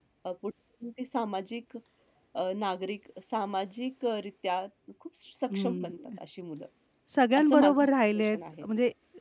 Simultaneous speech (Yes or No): Yes